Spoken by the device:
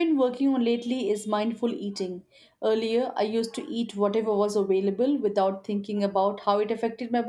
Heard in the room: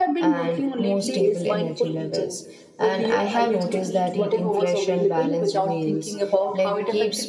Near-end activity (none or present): present